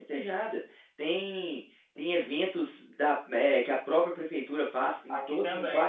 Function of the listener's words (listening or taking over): listening